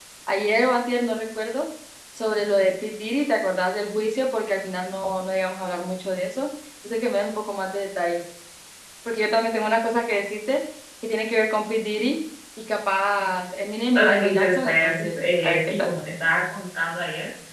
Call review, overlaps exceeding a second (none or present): present